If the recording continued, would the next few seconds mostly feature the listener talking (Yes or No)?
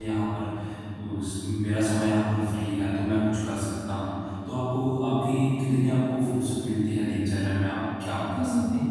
Yes